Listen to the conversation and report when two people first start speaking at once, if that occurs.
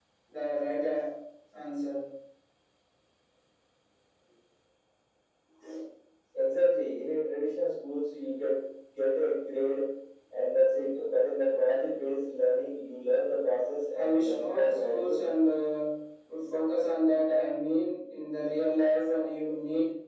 14 s

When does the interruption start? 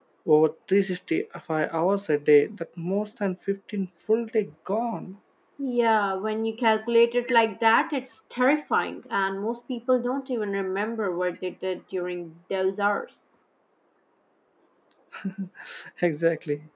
none

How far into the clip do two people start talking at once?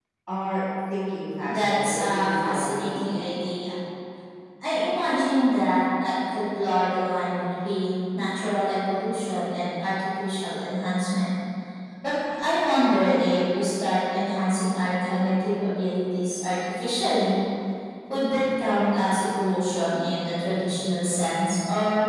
1 s

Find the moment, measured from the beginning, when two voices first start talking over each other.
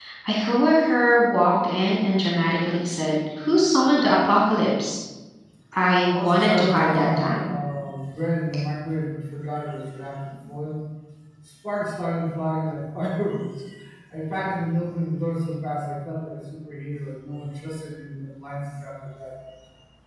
6 s

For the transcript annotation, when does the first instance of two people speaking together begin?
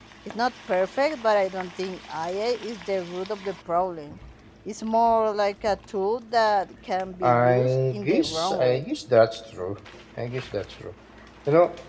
7 s

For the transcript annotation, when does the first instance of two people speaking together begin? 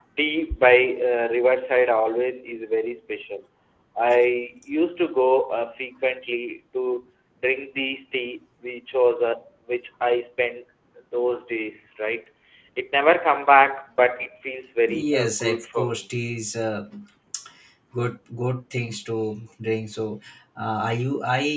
15 s

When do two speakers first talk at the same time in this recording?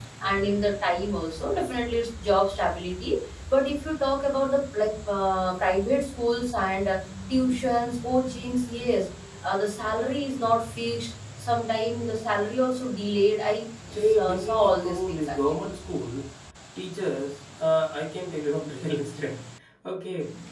14 s

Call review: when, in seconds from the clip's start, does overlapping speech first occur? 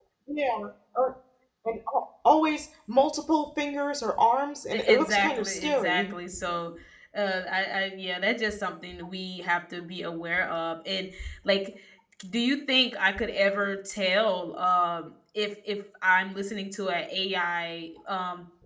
5 s

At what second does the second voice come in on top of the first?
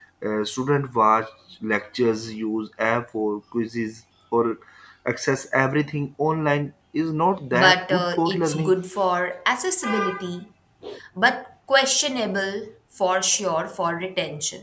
8 s

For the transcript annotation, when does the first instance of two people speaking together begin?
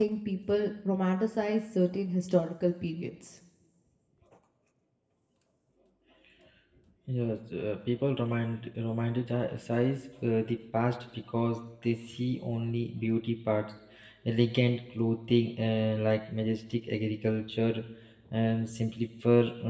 none

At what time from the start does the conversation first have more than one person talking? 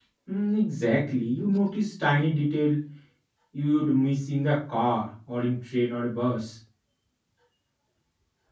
none

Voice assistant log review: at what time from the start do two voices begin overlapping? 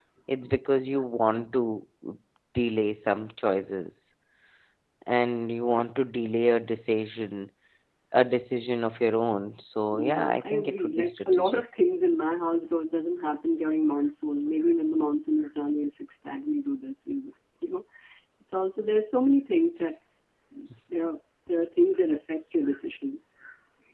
10 s

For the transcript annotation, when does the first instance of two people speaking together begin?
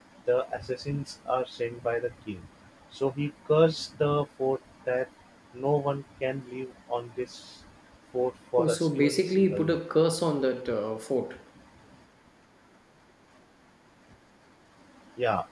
9 s

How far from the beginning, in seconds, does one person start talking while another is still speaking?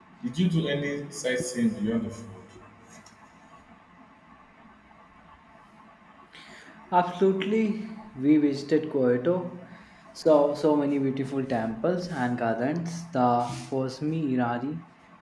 none

